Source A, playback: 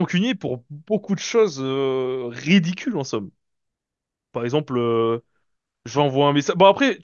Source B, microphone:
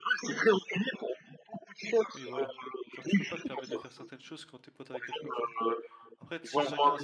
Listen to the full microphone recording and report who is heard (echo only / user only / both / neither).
both